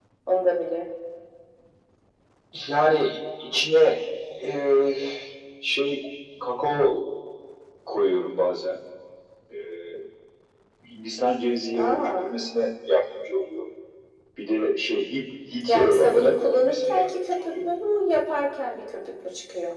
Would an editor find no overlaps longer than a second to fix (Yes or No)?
No